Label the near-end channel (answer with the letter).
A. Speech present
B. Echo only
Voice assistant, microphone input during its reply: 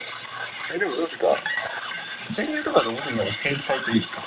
B